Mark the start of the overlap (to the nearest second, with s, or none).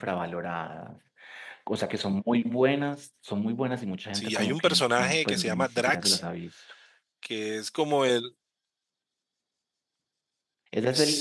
4 s